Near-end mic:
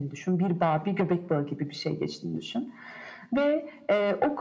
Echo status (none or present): present